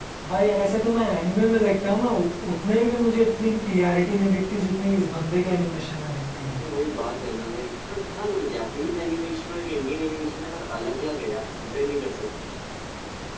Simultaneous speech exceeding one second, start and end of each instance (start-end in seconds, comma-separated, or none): none